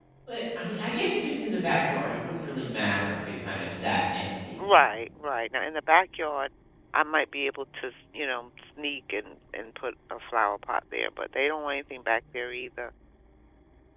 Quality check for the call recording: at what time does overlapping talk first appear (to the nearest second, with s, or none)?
none